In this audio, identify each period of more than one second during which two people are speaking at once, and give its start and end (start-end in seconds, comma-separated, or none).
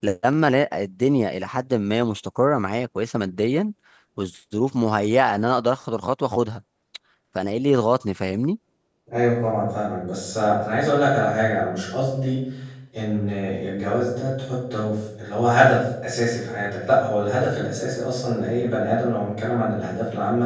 none